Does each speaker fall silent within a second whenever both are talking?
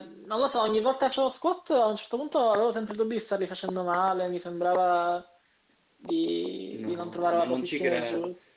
No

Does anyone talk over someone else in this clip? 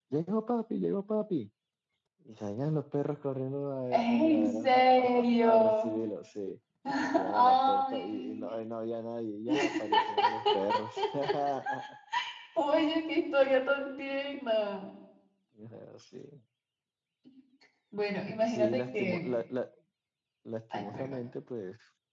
Yes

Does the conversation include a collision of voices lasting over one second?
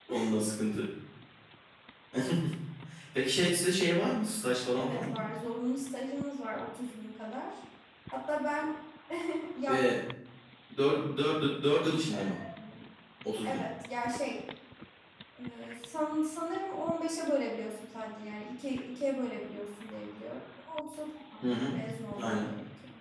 No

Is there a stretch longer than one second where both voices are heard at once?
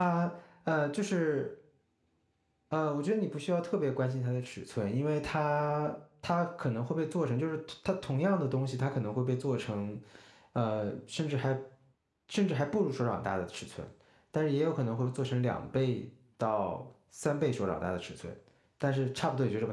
No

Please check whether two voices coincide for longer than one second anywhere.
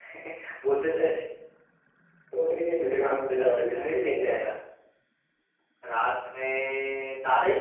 Yes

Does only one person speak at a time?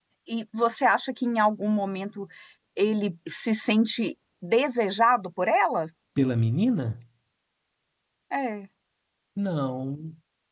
Yes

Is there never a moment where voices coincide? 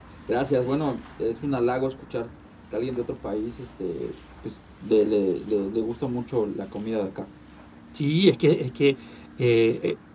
Yes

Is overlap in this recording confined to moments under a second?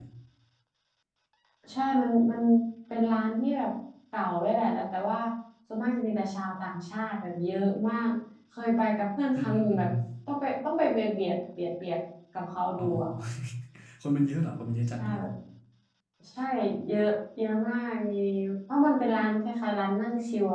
Yes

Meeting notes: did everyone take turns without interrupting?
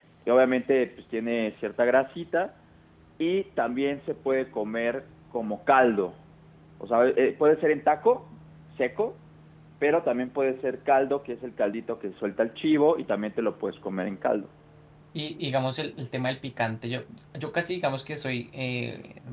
Yes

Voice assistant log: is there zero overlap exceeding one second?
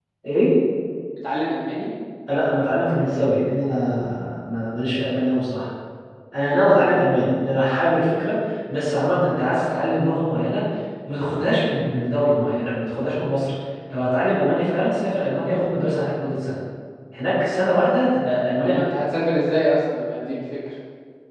Yes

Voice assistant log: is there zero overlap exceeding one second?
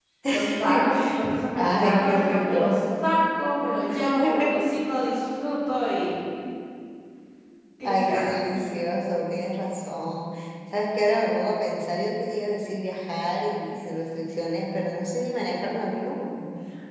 No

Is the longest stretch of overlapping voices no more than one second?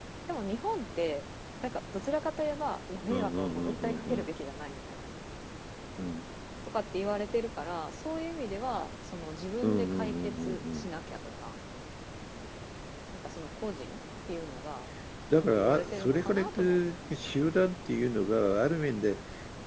No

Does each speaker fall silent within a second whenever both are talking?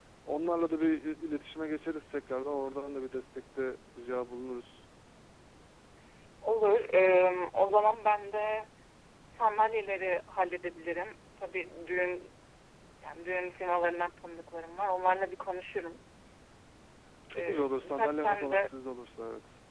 No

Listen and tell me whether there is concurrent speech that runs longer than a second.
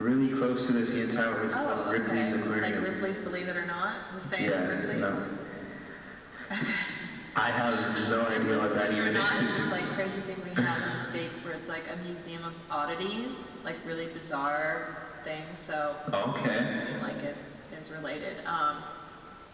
Yes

